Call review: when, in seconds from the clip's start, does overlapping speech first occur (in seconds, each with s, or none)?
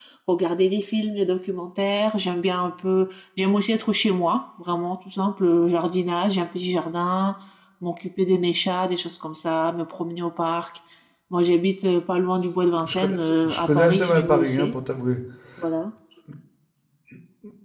12.8 s